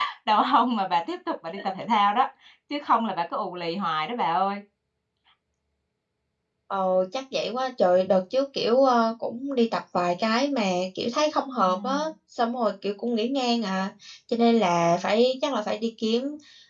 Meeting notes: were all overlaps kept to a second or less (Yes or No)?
Yes